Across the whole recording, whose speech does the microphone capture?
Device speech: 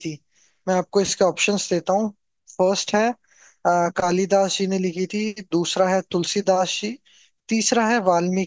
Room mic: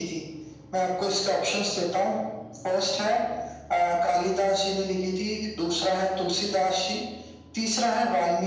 echo only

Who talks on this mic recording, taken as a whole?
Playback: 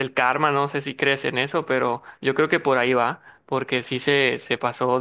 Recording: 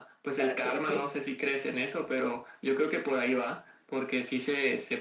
both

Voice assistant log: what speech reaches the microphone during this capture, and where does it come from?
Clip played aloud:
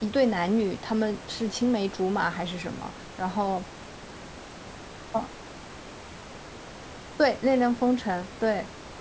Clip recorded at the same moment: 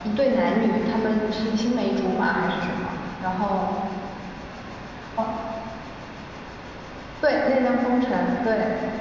echo only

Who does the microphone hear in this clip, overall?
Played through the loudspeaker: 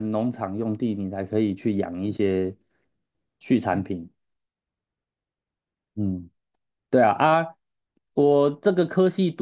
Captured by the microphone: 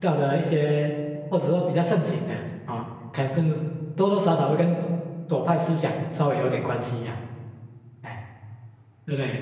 user only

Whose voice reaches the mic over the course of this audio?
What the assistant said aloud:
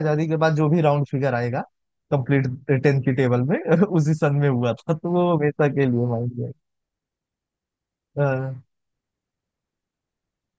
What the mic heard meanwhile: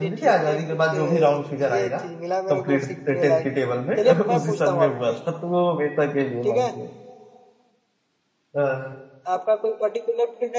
both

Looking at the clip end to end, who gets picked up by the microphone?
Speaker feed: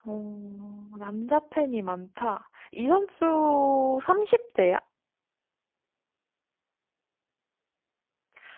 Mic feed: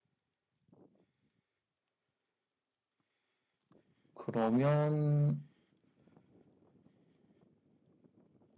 user only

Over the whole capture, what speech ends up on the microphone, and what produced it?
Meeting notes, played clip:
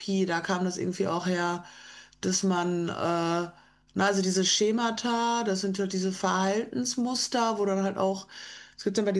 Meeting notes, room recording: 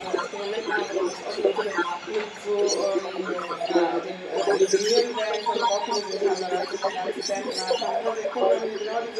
both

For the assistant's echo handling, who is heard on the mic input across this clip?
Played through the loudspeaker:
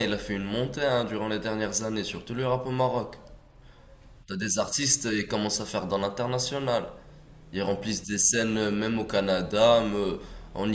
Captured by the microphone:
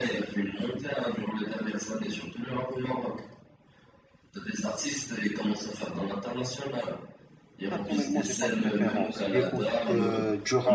both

